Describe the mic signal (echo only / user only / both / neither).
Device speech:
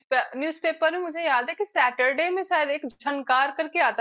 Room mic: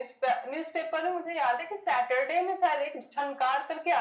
echo only